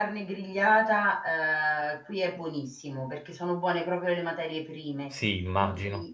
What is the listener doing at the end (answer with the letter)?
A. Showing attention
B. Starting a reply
A